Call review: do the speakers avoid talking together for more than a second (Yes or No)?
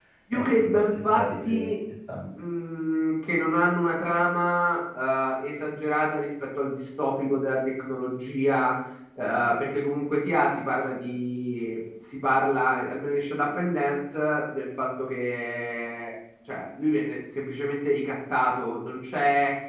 No